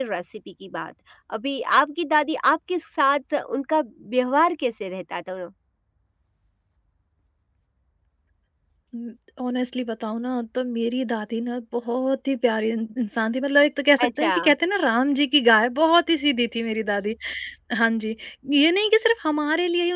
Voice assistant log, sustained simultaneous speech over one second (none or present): none